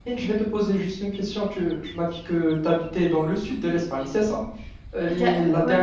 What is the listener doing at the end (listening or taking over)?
listening